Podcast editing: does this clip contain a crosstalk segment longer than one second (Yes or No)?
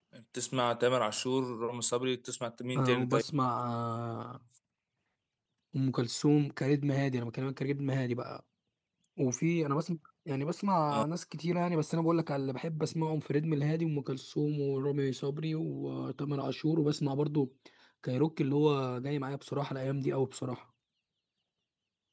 No